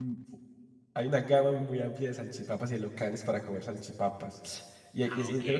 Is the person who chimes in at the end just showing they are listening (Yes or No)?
Yes